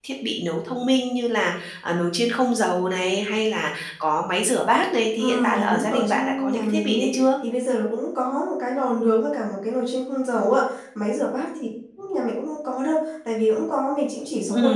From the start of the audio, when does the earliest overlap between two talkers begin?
5.2 s

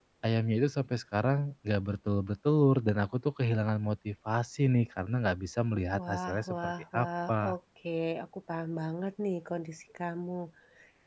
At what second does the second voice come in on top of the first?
6.0 s

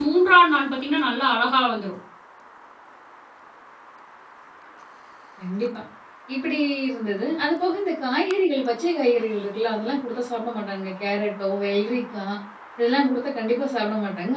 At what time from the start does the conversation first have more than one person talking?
none

